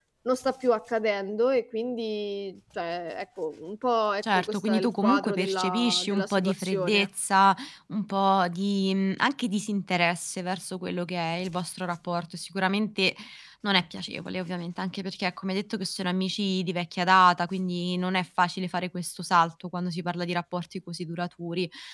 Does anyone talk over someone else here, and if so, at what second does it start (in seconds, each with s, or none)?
4.2 s